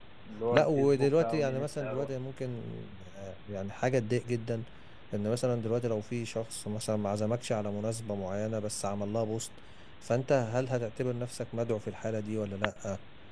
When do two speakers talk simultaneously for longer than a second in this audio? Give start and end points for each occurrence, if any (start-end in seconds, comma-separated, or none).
0.5-2.1